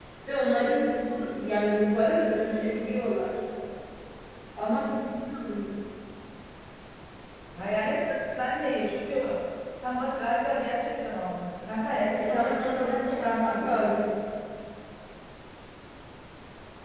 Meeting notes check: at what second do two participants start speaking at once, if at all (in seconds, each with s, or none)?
12.2 s